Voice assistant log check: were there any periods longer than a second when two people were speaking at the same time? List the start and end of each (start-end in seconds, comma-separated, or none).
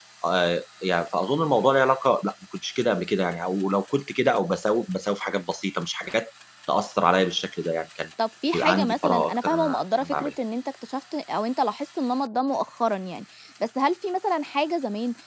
8.5-10.3